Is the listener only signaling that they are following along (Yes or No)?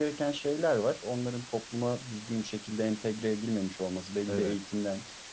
Yes